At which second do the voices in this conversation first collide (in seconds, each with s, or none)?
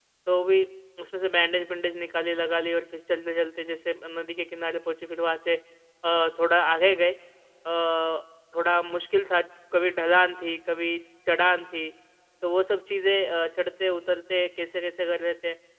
none